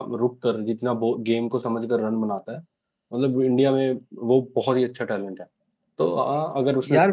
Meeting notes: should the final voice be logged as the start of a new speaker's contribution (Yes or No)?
No